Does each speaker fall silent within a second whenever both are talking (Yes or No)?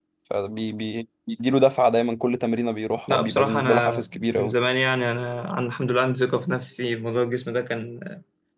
No